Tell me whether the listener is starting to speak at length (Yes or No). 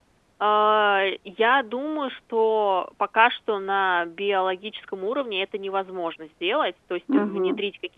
No